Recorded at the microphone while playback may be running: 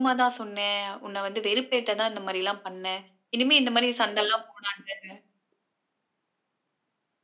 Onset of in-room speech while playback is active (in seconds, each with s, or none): none